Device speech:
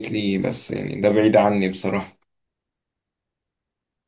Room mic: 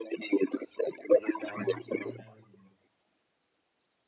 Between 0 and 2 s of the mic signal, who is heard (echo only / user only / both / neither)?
both